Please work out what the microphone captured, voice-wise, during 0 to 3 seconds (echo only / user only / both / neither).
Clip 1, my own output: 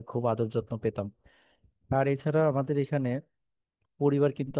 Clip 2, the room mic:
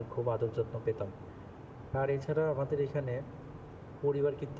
echo only